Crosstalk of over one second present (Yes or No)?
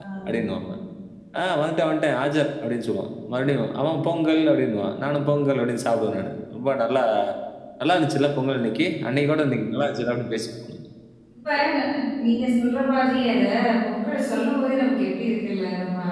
No